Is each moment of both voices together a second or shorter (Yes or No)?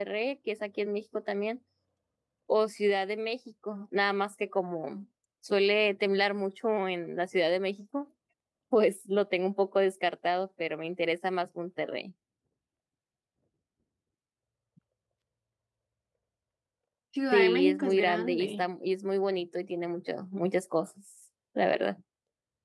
No